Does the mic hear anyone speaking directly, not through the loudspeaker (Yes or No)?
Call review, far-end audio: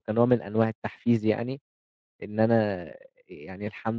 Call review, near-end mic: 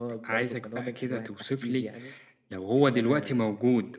Yes